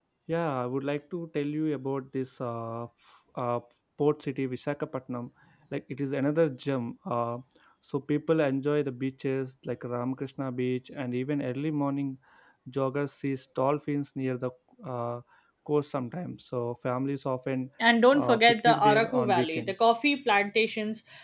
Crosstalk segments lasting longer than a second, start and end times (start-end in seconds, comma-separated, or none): 18.1-19.8